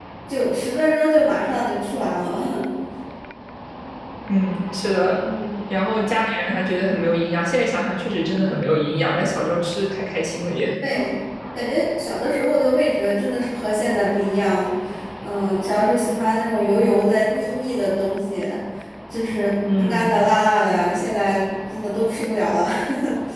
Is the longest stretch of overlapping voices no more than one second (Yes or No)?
Yes